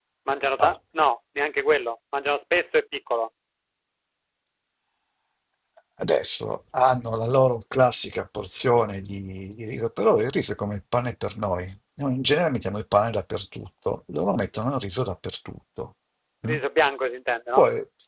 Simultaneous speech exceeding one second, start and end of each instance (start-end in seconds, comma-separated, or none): none